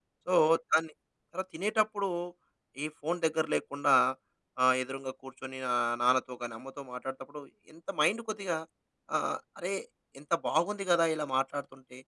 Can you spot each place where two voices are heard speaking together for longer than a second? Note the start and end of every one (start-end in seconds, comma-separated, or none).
none